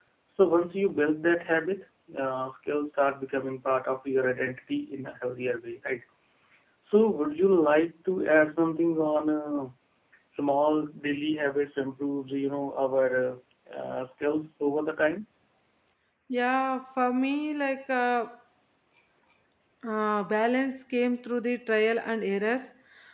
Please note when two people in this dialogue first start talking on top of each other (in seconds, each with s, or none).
none